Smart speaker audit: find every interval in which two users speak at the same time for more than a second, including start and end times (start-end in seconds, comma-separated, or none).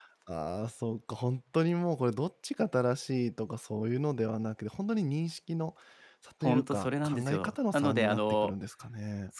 6.4-8.5